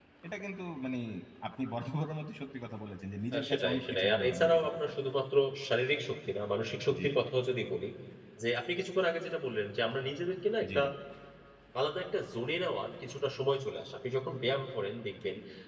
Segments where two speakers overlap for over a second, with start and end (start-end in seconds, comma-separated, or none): 3.4-4.8